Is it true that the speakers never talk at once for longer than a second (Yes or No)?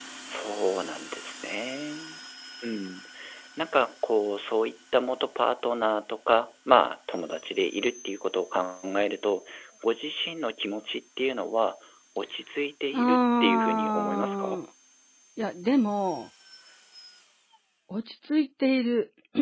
No